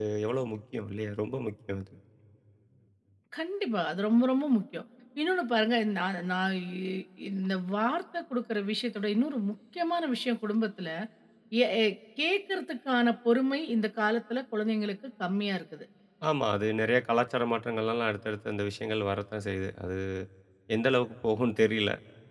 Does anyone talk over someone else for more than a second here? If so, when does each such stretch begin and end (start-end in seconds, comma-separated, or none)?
none